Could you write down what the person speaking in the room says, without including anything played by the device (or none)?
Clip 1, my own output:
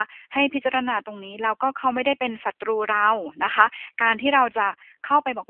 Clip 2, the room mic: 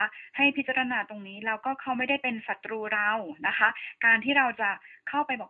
none